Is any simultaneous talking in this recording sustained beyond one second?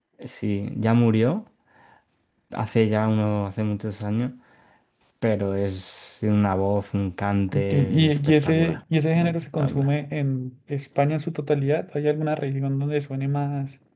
Yes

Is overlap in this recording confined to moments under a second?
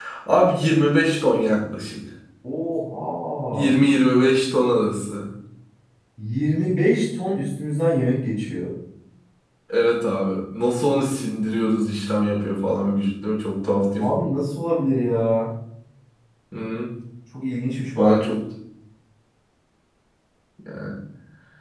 Yes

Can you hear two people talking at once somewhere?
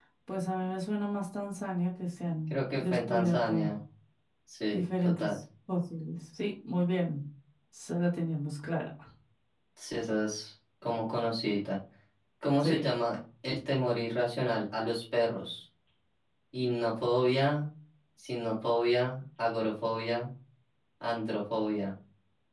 Yes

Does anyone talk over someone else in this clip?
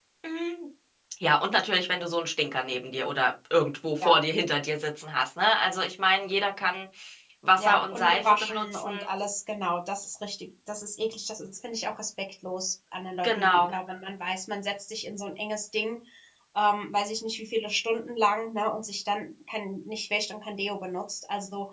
Yes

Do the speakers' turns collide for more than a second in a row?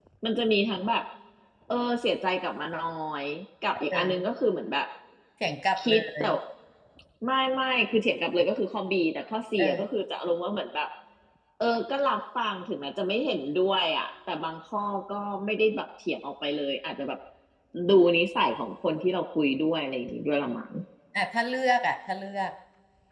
No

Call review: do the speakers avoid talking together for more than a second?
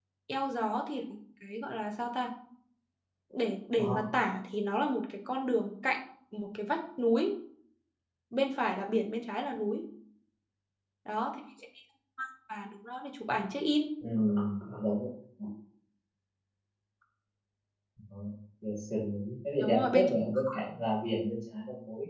Yes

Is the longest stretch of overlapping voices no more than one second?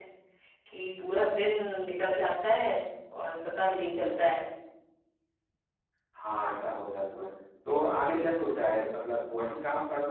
Yes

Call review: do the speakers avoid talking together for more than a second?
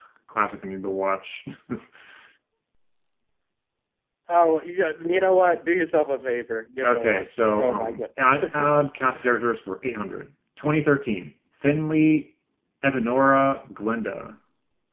No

